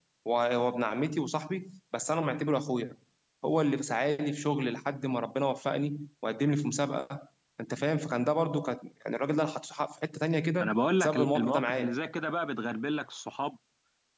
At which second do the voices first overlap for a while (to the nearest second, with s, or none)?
11 s